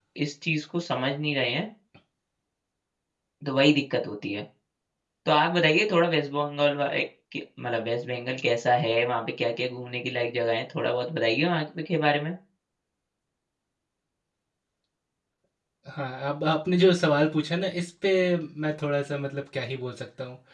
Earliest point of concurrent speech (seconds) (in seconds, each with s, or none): none